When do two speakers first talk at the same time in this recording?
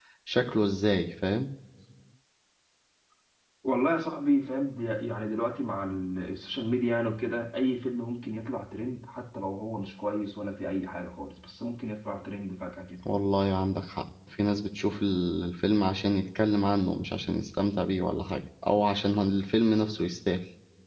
none

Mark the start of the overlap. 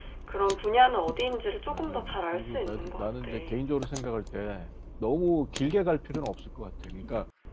1.7 s

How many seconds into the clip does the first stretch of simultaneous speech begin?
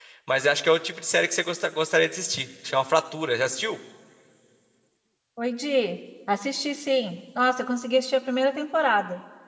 none

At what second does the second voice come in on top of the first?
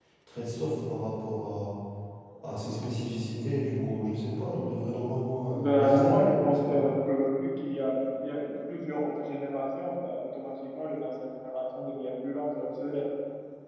5.5 s

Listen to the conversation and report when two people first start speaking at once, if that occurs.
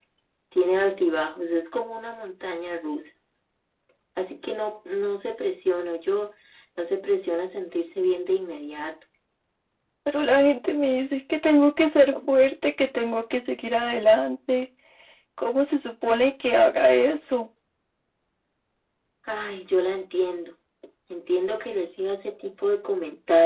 none

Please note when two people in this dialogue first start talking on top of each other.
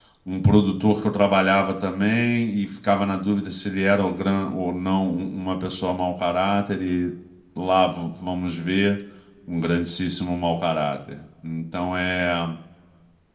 none

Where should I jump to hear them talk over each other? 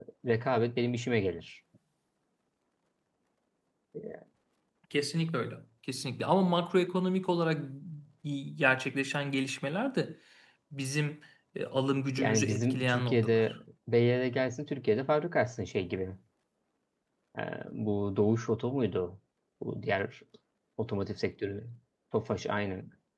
12.2 s

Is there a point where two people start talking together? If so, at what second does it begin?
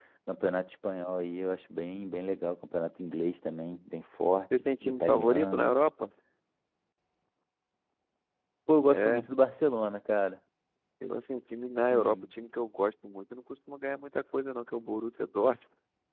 4.6 s

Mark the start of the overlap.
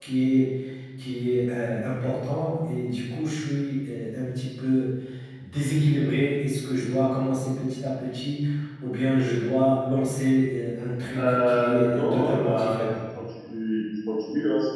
11.1 s

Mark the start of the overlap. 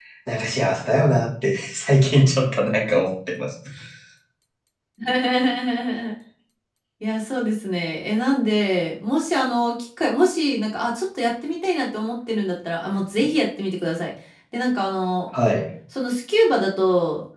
none

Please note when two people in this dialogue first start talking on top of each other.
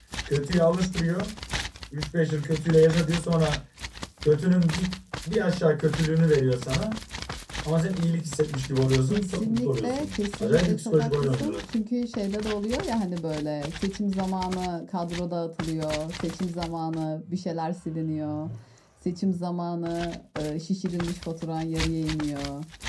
9.1 s

